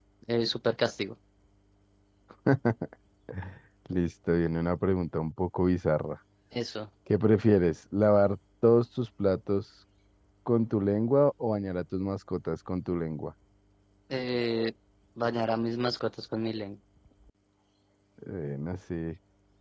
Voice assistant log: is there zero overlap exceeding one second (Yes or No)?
Yes